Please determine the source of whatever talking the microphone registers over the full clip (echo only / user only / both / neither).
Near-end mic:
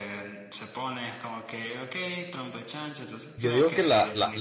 both